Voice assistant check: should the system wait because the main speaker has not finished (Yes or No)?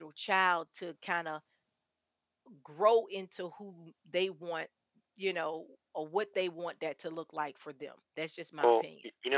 No